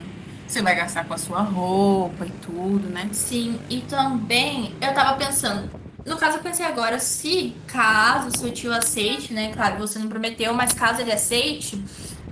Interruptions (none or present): none